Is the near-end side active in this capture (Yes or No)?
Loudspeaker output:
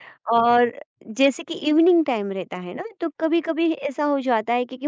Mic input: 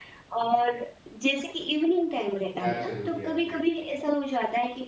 Yes